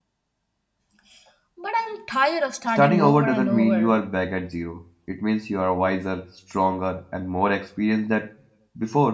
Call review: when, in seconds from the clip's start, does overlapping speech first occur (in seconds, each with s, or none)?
2.8 s